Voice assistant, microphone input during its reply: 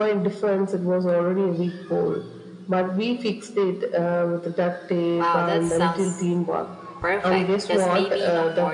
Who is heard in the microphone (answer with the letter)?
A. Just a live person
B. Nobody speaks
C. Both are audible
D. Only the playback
C